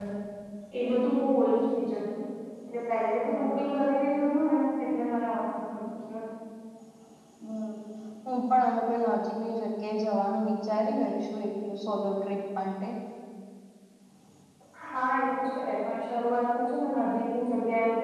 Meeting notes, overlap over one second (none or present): none